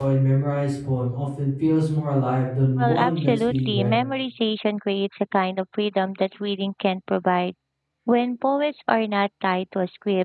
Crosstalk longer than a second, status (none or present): present